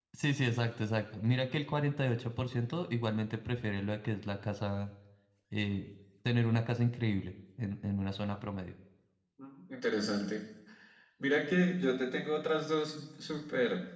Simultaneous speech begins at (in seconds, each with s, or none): none